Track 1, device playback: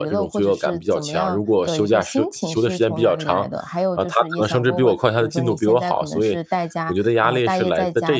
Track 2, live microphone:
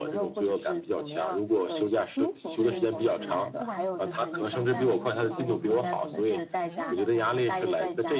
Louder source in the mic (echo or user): echo